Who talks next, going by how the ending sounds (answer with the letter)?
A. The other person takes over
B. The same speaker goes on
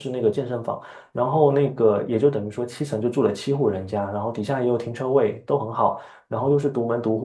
B